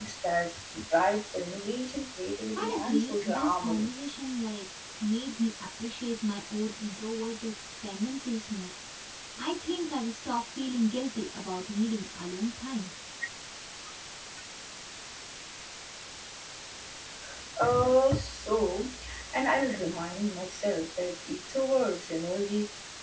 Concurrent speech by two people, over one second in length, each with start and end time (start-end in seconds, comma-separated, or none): 2.5-3.9